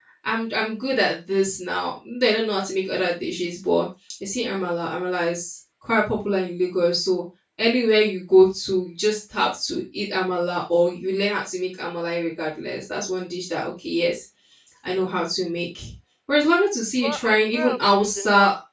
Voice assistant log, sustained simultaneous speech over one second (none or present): present